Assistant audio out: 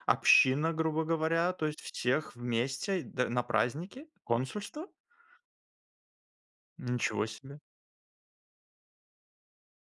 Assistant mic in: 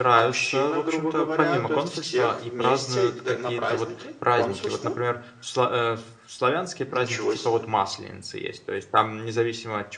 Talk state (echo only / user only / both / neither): both